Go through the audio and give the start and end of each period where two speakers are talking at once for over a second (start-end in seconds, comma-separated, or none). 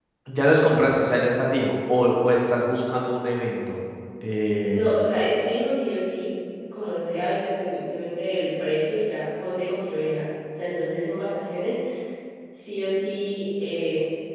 none